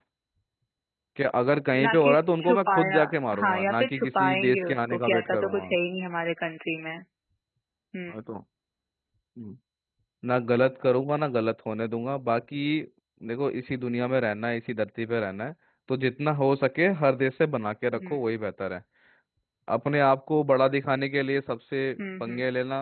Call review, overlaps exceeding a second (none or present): present